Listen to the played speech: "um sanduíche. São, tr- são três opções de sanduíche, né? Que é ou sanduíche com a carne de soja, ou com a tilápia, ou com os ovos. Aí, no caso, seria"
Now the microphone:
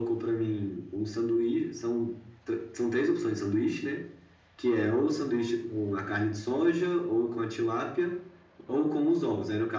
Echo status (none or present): present